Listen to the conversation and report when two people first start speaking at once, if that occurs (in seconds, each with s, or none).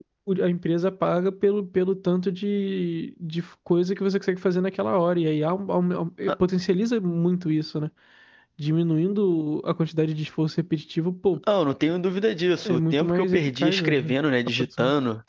12.7 s